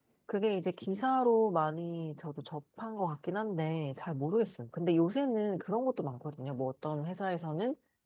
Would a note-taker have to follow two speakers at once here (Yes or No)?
No